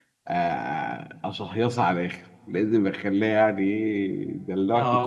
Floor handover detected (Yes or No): Yes